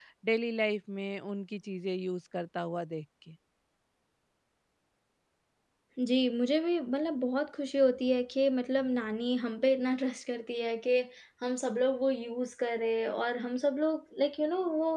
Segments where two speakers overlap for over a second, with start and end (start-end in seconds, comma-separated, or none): none